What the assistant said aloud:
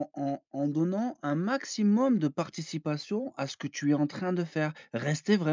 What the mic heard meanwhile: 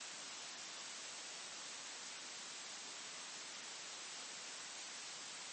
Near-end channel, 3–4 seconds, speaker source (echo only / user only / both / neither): neither